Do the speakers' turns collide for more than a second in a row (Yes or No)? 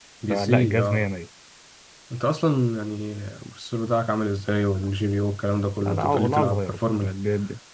Yes